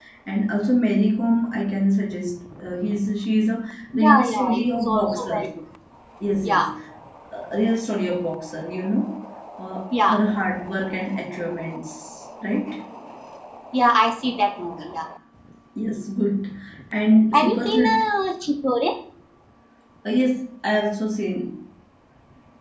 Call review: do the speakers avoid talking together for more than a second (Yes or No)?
No